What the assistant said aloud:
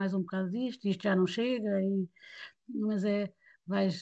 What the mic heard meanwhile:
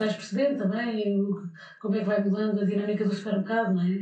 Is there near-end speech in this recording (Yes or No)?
Yes